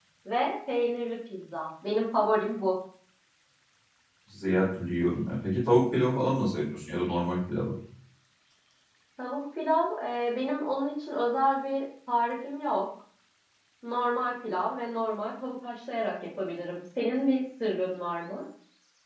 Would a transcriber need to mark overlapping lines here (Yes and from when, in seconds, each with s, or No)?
No